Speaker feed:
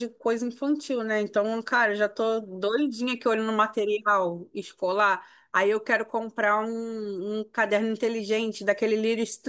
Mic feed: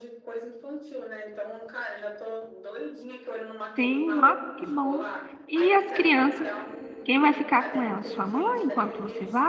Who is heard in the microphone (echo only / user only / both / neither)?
both